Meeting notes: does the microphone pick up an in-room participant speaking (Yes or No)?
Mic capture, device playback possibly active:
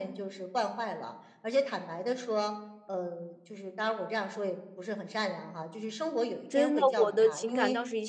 Yes